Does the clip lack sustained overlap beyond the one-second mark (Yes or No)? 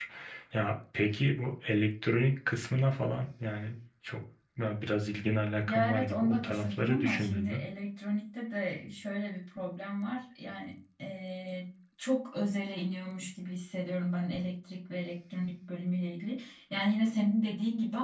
No